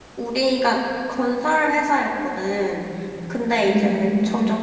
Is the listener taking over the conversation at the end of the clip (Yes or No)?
No